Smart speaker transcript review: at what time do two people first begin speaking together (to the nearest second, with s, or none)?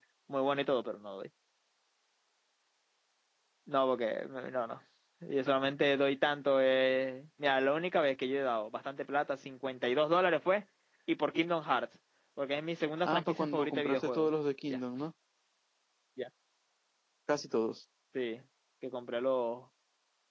13 s